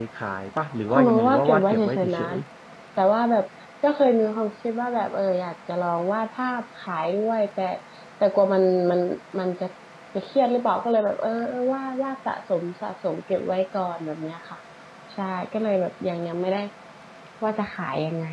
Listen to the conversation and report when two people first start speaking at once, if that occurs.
0.9 s

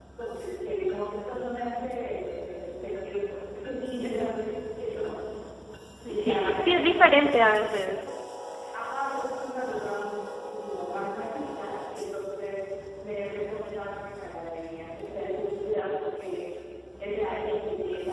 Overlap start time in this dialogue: 6.1 s

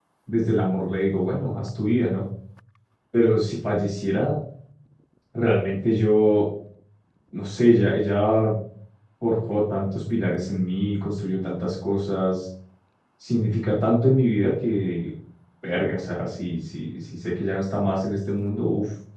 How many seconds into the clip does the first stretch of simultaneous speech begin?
none

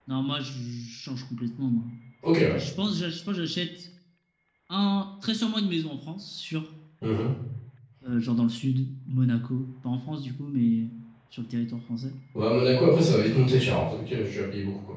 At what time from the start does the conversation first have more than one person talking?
none

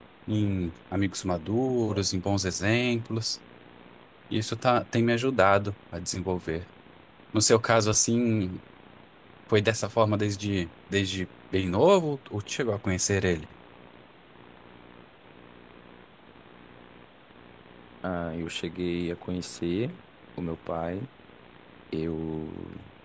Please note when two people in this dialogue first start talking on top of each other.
none

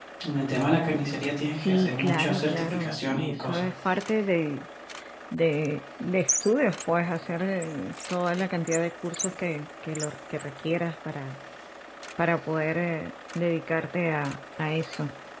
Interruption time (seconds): 1.5 s

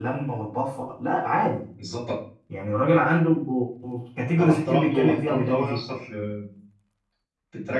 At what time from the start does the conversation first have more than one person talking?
4.4 s

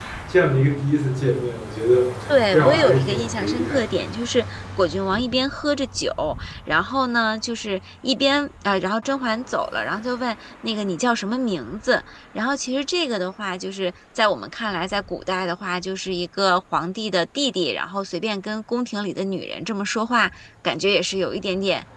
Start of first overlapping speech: 2.5 s

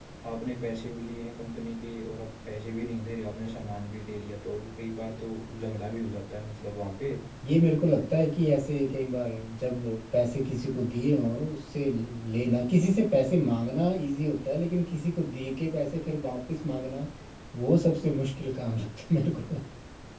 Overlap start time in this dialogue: none

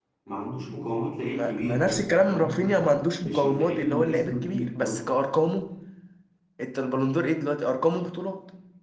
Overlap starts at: 1.3 s

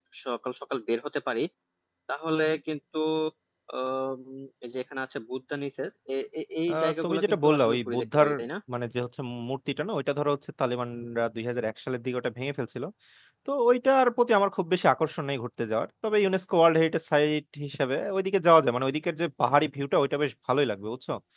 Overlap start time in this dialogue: 6.7 s

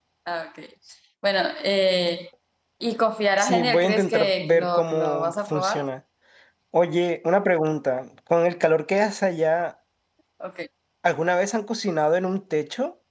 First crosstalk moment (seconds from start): 3.4 s

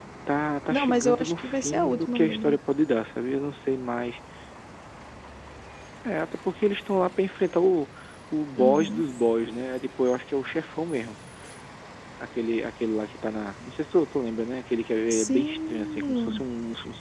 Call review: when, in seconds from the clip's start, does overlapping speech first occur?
0.7 s

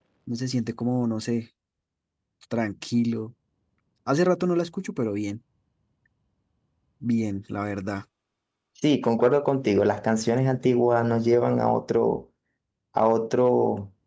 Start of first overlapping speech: none

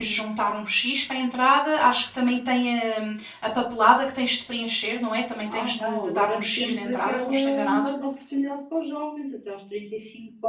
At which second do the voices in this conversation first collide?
5.5 s

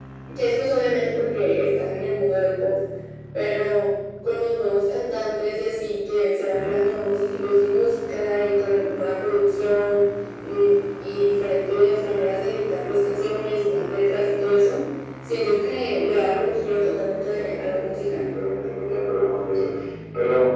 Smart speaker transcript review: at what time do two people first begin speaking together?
16.8 s

